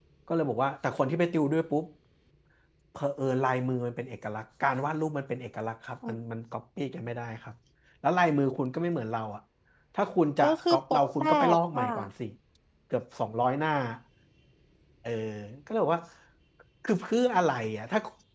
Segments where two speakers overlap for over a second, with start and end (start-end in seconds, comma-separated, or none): 10.4-11.8